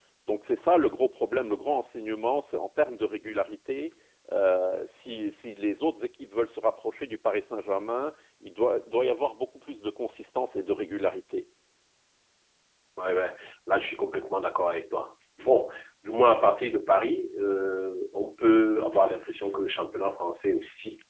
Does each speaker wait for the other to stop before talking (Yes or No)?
Yes